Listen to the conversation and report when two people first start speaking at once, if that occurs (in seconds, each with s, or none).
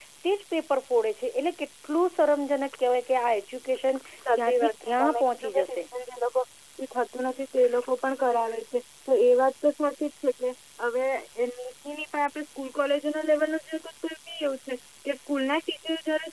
4.2 s